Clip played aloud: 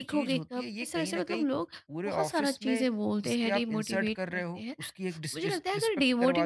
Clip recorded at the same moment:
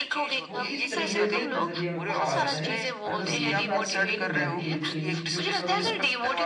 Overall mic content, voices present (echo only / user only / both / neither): both